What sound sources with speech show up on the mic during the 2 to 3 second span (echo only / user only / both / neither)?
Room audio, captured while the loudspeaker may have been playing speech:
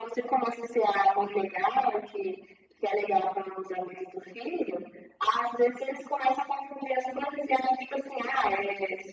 echo only